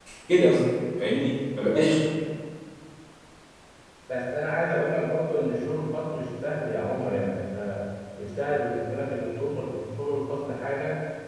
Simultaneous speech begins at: none

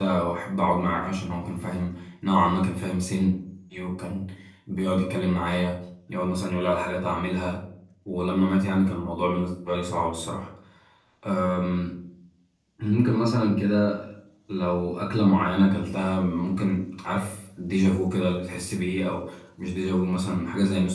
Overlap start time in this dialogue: none

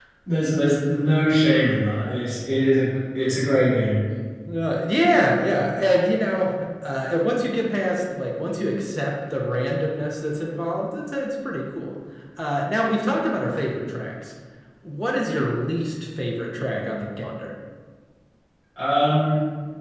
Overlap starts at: none

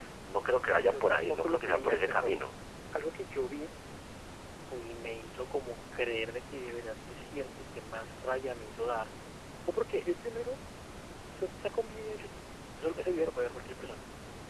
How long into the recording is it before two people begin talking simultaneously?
1 s

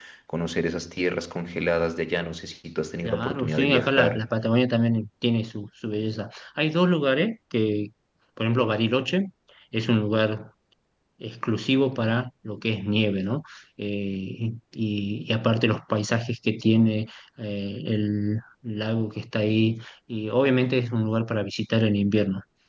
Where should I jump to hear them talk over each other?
3 s

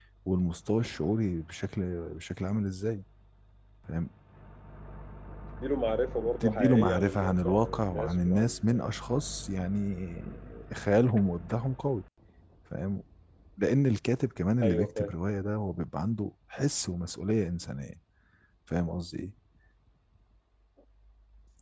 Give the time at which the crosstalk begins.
6 s

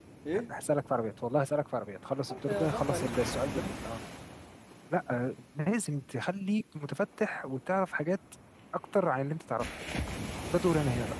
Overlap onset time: 2 s

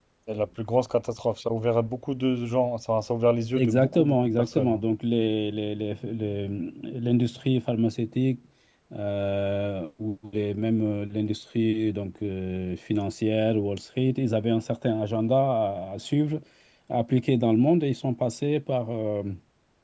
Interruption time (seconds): 4 s

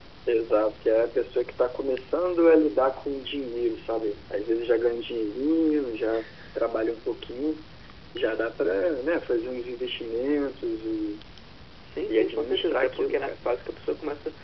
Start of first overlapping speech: 12 s

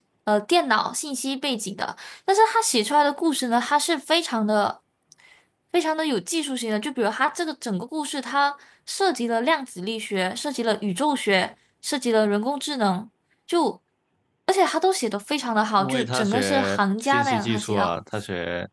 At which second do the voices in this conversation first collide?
16 s

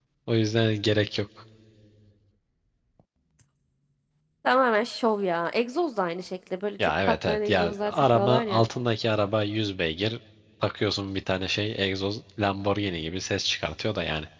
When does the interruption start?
7 s

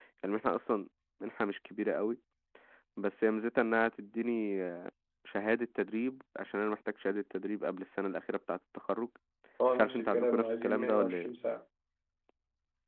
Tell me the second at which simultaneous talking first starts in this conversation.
10 s

